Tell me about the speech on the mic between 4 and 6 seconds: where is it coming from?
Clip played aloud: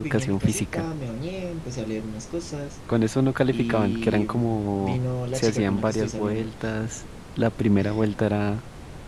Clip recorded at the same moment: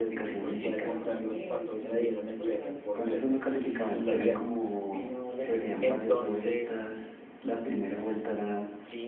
both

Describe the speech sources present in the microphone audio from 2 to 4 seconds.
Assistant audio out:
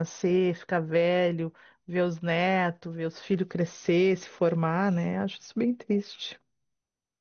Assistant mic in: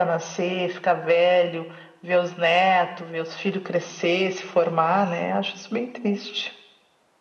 echo only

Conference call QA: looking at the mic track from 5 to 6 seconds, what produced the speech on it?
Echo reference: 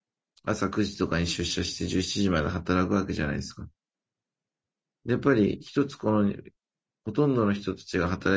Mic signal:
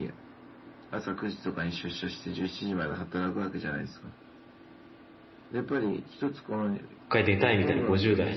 echo only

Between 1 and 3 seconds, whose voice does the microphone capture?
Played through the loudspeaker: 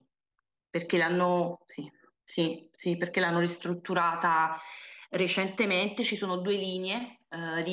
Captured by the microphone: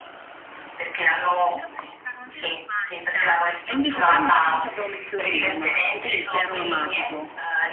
both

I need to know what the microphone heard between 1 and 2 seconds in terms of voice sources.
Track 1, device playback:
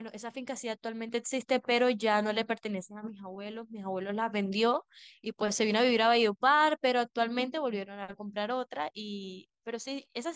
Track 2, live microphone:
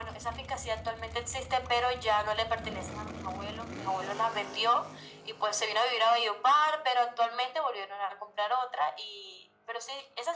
echo only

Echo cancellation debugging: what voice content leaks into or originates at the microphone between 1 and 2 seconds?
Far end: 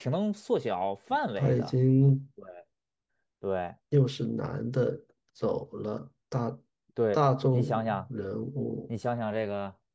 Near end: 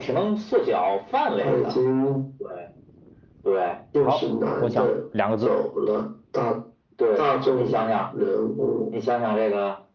echo only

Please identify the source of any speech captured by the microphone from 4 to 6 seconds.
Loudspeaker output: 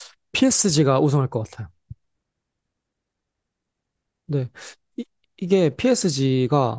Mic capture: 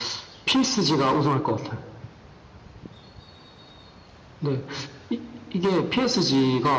echo only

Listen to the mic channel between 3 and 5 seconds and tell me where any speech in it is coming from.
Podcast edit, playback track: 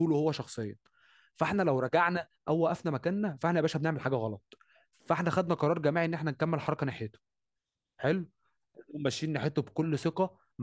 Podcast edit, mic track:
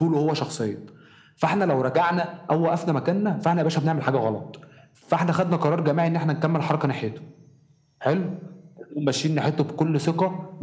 echo only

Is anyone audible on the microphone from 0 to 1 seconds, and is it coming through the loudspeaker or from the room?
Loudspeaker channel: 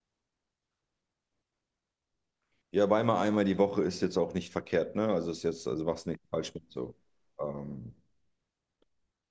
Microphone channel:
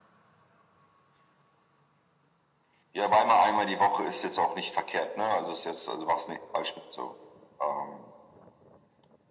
neither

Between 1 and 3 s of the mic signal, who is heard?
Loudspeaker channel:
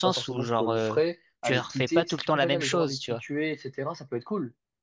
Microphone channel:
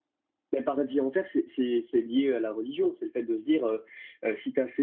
user only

